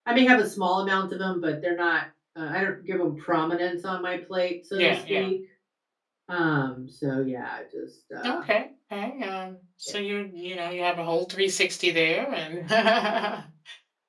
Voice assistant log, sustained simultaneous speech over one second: none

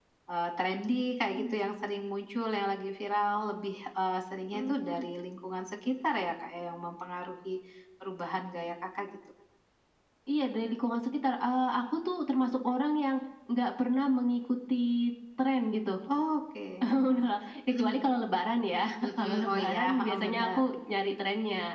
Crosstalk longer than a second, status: present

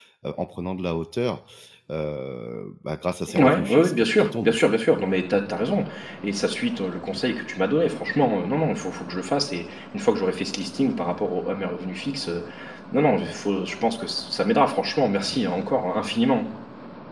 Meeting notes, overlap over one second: present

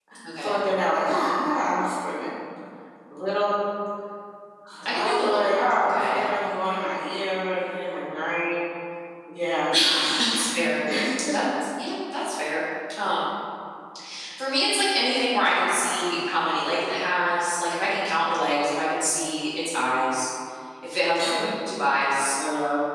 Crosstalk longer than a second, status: present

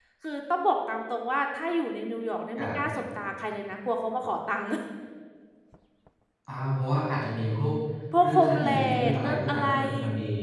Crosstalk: present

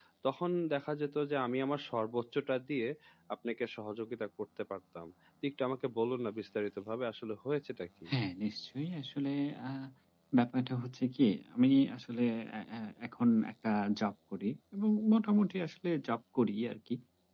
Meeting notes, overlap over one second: none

